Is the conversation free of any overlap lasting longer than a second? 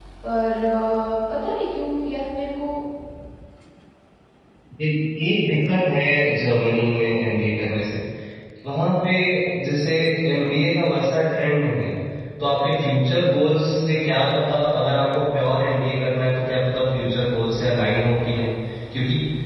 Yes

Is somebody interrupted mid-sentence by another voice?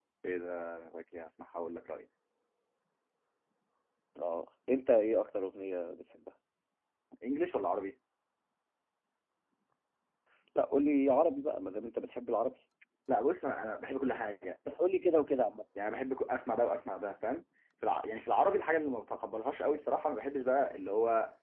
No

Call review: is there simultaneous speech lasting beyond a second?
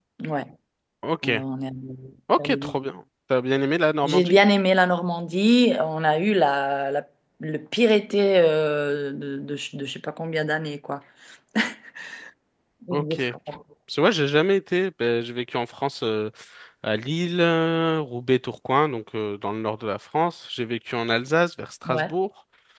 No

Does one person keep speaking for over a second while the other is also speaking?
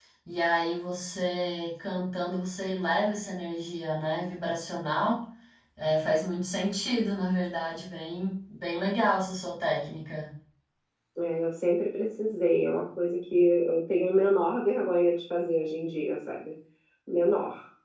No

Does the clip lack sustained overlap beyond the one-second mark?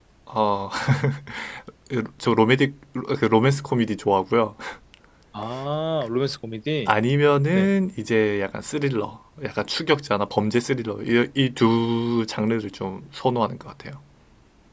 Yes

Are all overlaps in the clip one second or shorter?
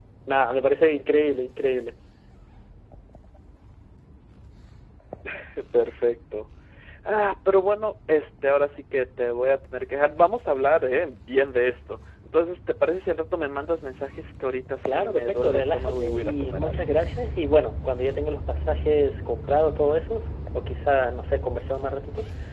No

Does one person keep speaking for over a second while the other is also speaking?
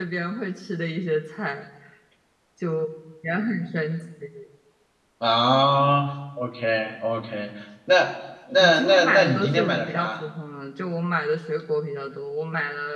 Yes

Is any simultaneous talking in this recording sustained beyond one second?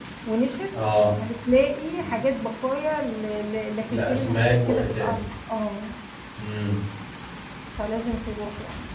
Yes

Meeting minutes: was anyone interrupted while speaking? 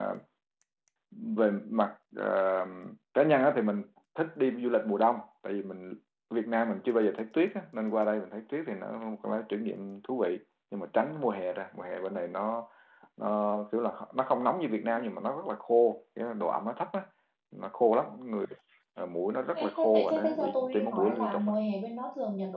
Yes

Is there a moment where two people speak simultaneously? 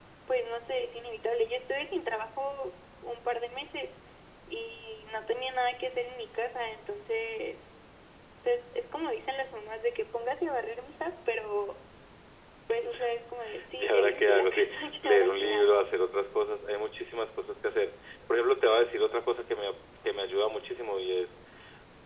Yes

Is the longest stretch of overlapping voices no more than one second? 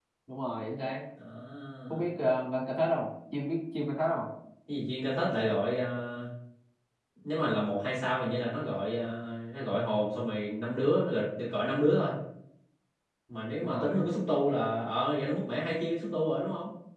Yes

